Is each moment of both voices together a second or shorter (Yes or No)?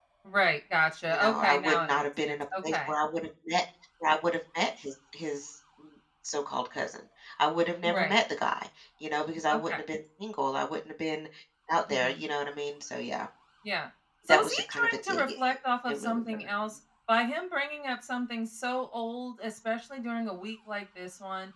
No